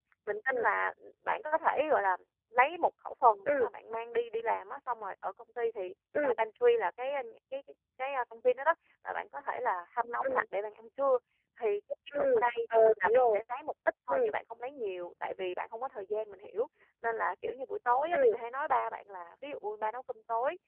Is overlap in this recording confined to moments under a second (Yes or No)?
Yes